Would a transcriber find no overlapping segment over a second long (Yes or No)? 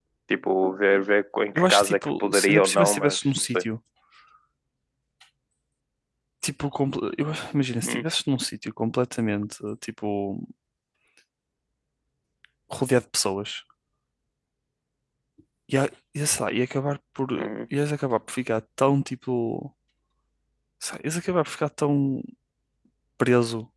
No